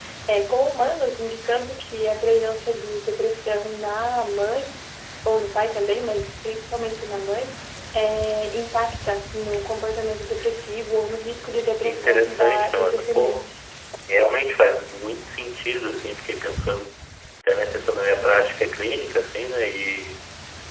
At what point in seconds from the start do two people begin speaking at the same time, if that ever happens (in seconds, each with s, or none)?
11.8 s